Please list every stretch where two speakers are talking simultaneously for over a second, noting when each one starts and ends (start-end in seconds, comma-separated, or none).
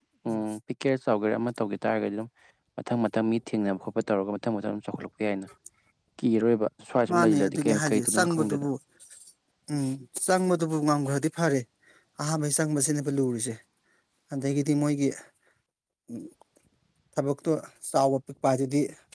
7.1-8.7